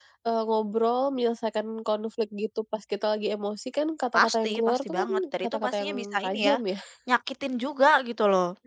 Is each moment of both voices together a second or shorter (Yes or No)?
No